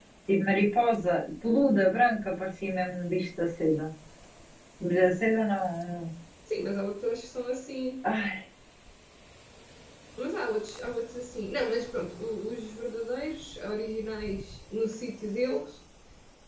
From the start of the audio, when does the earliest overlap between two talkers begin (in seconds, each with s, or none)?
none